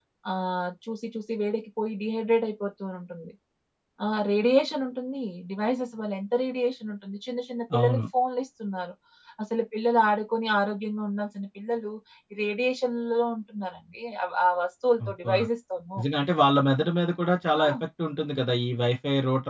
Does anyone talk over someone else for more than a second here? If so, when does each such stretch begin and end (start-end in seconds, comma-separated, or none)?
none